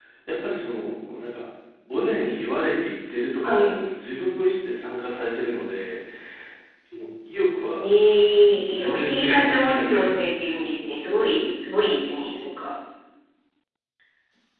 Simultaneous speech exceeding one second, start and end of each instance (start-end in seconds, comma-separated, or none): 8.5-10.2